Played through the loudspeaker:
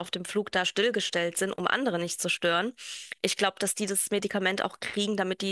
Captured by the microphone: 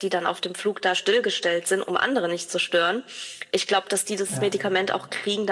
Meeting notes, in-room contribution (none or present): present